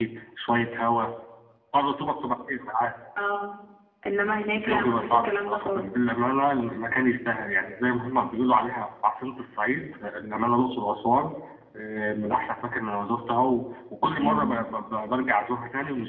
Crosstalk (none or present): present